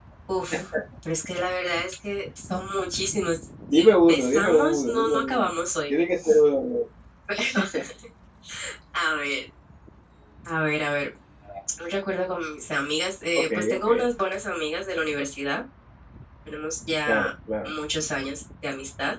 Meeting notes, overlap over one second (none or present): present